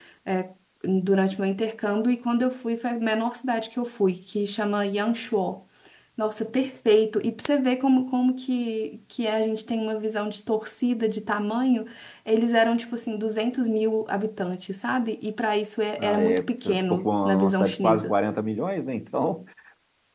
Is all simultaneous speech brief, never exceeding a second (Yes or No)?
No